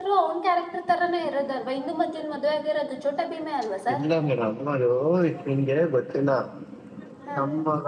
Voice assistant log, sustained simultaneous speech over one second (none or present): none